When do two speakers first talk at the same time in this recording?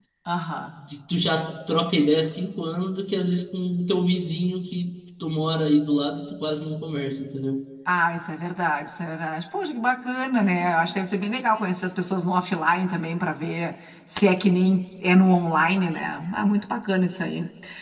none

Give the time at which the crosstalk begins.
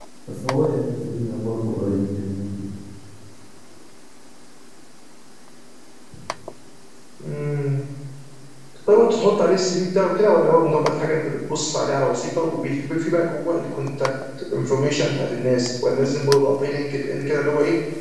none

